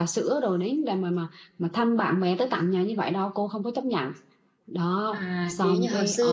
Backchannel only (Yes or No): No